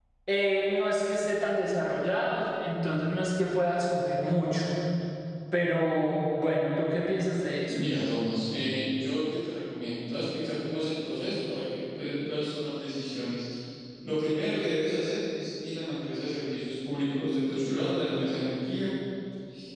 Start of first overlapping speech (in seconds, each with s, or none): none